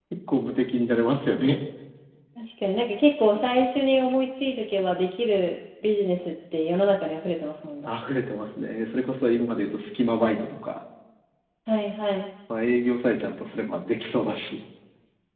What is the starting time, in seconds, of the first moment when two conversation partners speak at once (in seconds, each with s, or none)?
none